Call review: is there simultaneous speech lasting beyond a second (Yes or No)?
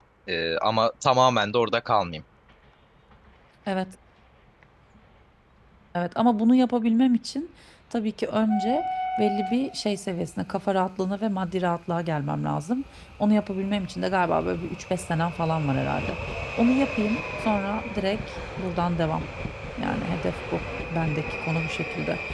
No